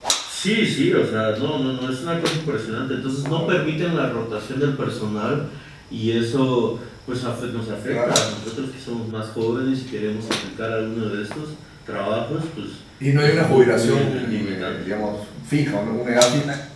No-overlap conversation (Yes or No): No